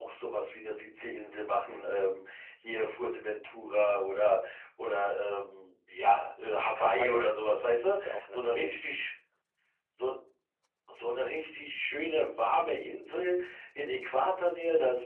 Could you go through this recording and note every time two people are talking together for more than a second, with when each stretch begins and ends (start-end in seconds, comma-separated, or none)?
6.8-8.8